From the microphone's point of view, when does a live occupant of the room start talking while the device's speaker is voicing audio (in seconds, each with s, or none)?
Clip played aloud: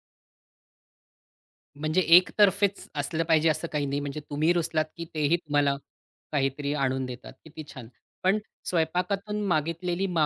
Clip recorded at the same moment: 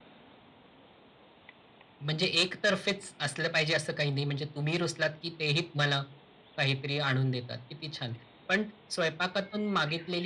none